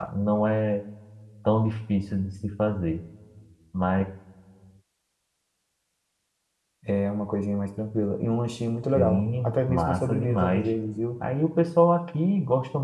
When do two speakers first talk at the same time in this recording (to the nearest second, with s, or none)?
9 s